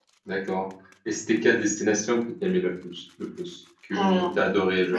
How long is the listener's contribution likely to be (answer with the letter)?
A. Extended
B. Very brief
B